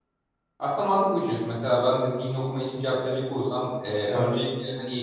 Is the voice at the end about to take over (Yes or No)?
No